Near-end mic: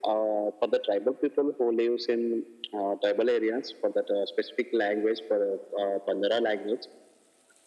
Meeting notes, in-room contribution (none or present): none